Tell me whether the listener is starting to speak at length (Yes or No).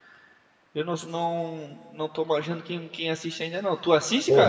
Yes